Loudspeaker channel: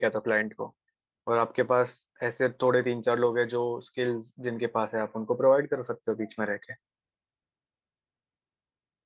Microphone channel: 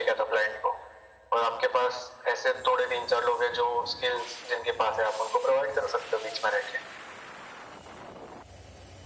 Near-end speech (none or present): none